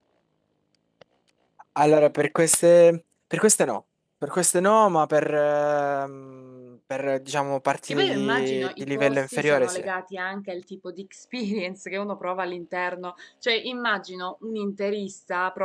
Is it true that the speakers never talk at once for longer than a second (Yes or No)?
No